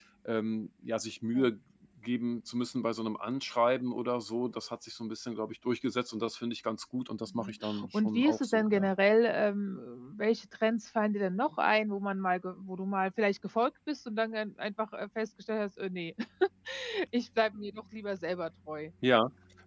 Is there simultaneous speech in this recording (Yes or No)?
Yes